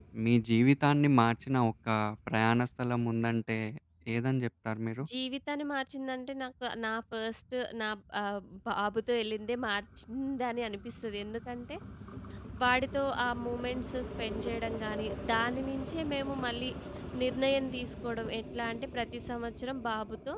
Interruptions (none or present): none